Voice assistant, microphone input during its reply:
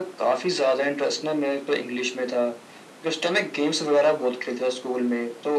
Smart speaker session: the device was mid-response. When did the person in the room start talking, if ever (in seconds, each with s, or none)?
none